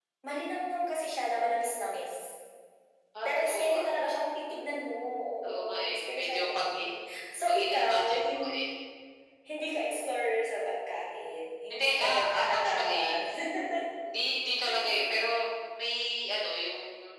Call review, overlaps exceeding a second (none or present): present